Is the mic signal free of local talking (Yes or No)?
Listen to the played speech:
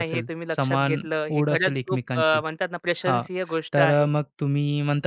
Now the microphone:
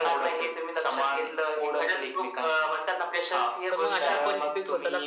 No